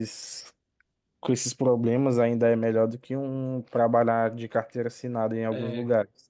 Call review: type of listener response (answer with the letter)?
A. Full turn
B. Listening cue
A